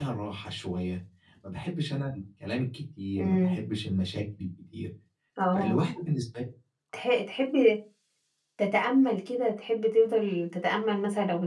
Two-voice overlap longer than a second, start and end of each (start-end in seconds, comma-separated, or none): none